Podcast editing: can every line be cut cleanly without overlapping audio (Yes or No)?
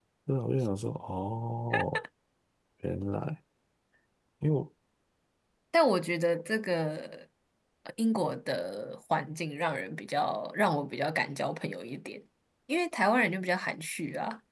Yes